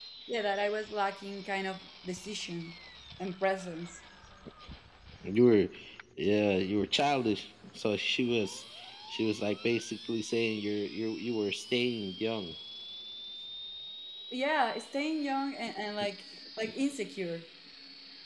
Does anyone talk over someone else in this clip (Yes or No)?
No